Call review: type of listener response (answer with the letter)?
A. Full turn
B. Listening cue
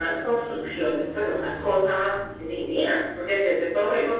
B